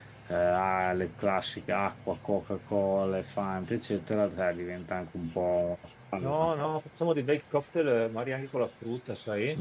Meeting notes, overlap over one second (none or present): none